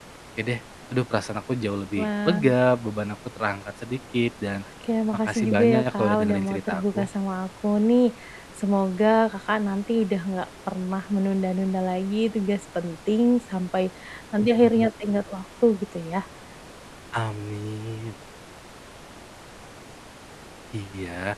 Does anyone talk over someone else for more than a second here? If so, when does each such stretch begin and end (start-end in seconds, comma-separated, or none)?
5.2-7.0